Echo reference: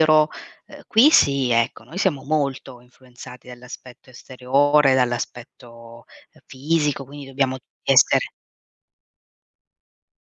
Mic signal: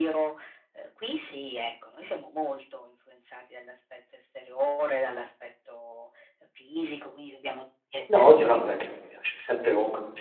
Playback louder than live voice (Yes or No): No